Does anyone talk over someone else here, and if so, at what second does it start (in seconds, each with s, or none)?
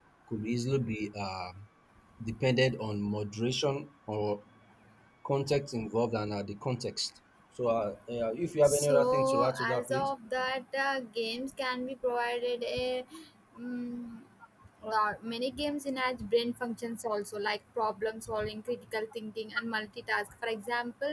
8.6 s